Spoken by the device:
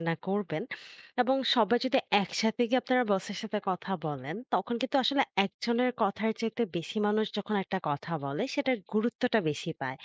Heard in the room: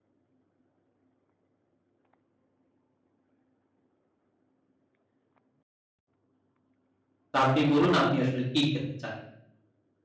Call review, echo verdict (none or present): none